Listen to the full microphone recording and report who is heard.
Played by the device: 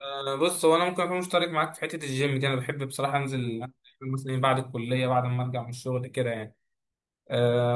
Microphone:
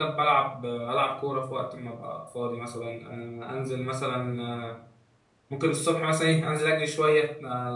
user only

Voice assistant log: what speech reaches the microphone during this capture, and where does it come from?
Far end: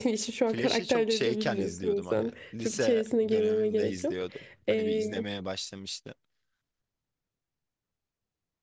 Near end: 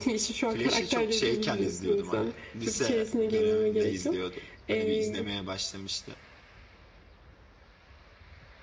echo only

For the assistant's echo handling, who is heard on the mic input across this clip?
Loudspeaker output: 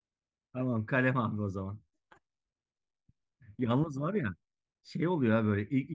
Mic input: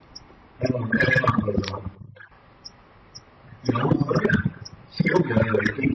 both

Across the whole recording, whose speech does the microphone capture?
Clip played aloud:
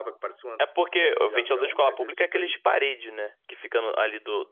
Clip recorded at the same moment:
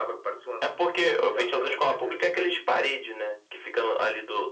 echo only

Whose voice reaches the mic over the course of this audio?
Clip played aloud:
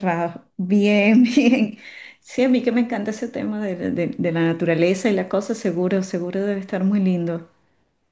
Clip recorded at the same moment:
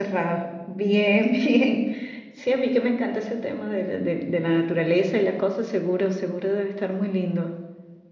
echo only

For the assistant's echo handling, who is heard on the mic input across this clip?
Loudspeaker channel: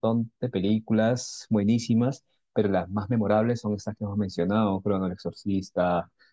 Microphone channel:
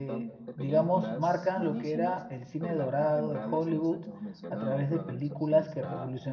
both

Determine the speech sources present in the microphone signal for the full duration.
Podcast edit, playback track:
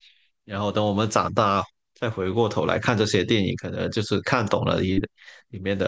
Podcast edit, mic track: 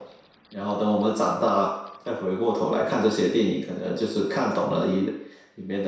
echo only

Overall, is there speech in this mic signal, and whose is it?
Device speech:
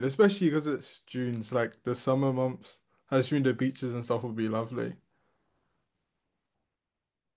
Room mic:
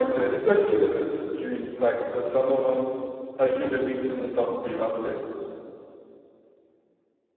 echo only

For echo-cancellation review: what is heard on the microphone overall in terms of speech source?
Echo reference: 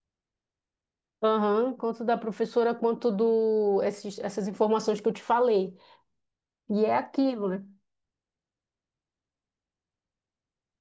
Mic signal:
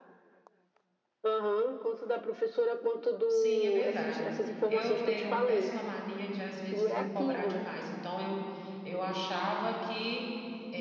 both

